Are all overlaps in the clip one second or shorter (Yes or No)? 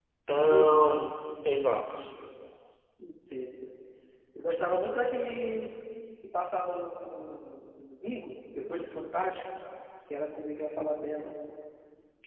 Yes